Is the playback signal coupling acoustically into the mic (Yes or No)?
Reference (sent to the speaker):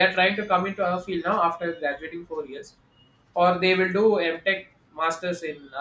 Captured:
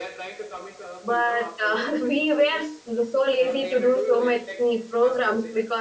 Yes